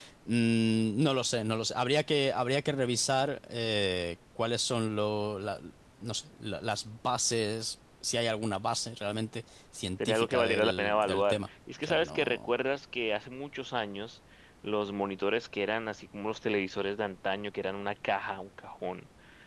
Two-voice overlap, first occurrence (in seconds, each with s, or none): 10.0 s